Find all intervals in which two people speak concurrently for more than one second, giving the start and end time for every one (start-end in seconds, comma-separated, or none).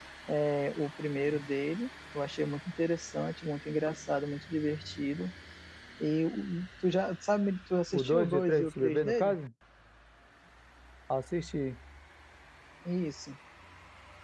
7.9-9.4